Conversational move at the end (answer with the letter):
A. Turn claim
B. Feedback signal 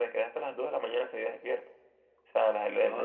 B